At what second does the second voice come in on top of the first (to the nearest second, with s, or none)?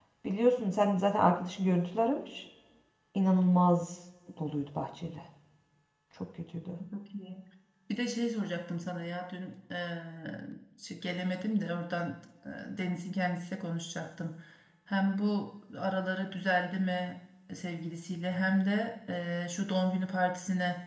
none